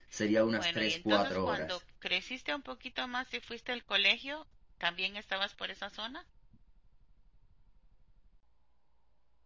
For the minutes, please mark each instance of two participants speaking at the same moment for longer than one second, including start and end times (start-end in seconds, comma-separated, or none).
0.6-1.8